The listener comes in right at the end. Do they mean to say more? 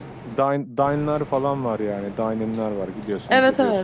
No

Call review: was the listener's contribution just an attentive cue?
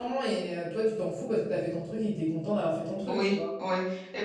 No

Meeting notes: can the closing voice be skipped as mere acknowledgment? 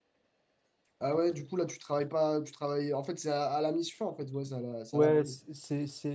No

